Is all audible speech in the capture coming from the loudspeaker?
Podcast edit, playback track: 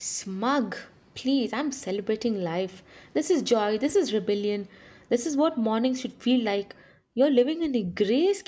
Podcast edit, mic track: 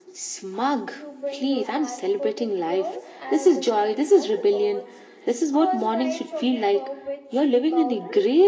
No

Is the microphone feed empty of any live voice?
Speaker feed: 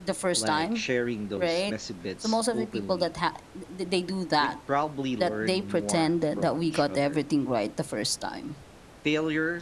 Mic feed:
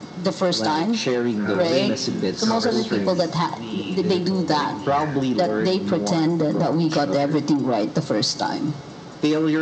No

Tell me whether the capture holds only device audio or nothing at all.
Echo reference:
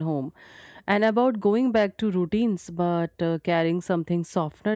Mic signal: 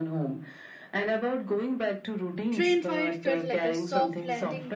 No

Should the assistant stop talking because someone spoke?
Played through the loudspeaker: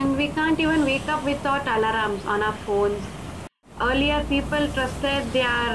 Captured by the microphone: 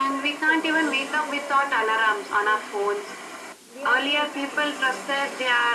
Yes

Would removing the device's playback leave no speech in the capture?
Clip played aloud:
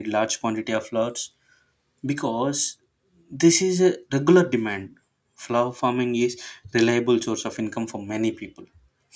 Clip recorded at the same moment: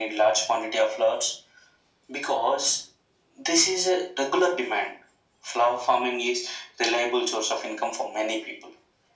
Yes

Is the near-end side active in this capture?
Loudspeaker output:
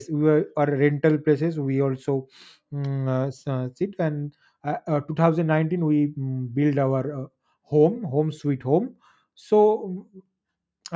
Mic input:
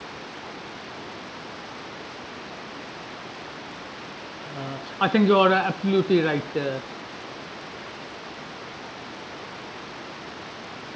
Yes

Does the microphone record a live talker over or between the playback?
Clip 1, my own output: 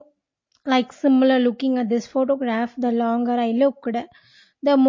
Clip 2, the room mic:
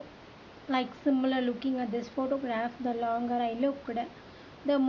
No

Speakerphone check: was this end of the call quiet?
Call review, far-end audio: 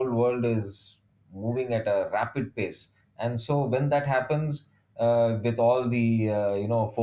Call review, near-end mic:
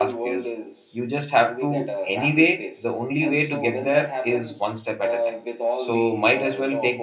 No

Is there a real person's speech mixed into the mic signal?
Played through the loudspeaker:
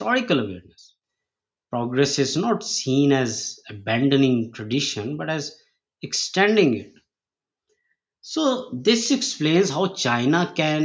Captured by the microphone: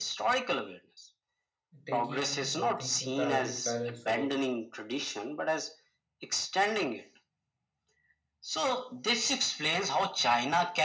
Yes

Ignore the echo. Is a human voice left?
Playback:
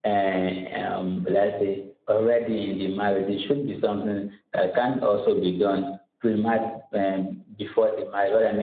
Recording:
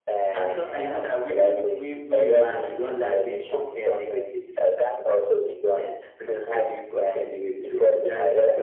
Yes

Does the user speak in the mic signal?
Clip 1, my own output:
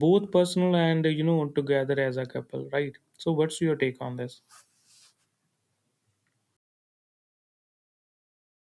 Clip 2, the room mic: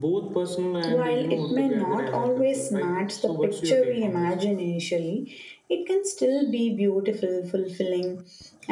Yes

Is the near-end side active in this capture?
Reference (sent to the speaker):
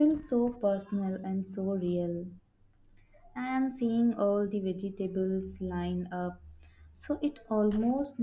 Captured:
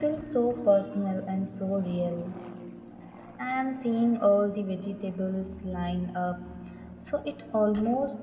No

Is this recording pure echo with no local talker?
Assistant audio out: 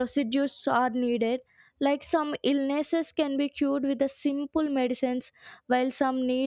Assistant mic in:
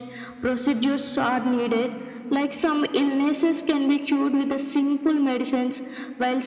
Yes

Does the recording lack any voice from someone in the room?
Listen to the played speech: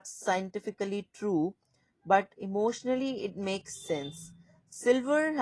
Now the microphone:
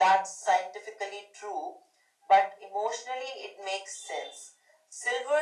Yes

